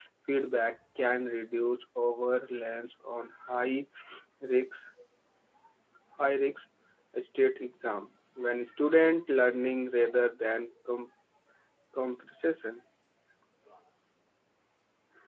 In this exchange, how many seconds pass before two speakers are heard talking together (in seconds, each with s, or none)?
none